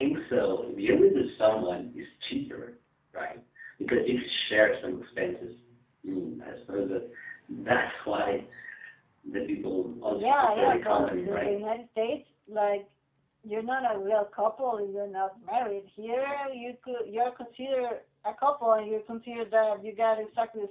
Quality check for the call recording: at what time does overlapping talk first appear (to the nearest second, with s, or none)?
10 s